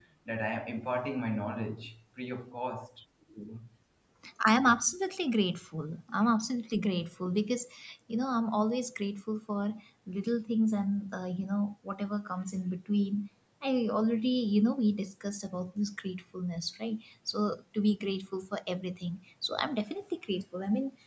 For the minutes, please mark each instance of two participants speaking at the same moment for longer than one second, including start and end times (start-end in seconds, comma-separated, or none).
none